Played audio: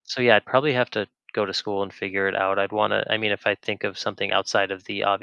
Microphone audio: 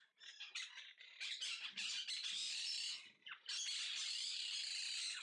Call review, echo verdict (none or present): none